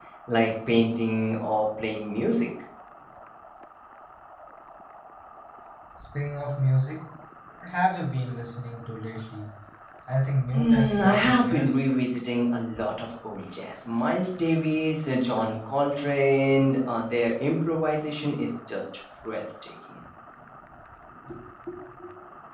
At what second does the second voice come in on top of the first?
11 s

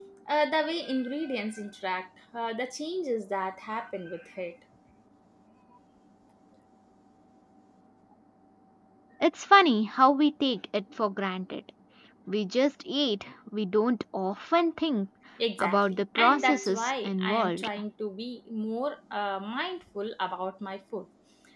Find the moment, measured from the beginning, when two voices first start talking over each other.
16 s

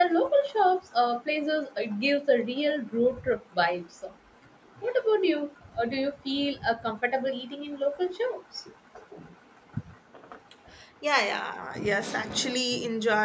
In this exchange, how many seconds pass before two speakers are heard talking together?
none

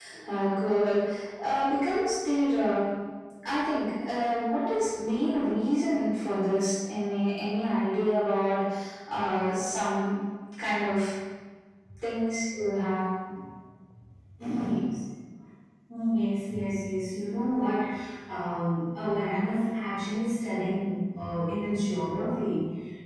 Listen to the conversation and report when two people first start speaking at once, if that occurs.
none

